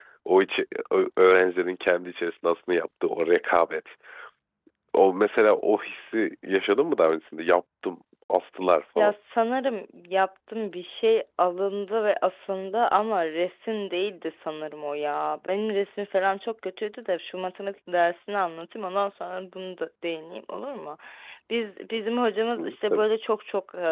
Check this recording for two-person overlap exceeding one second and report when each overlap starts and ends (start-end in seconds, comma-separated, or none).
none